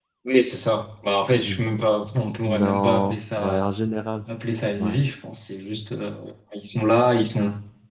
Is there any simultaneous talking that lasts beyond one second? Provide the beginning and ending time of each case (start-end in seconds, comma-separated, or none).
2.4-3.6